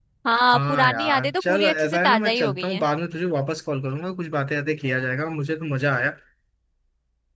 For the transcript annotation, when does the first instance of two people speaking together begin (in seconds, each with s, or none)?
0.5 s